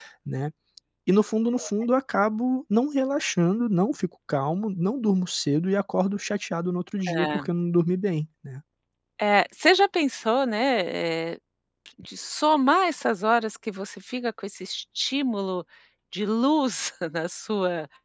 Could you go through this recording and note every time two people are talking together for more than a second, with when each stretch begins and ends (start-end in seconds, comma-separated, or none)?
none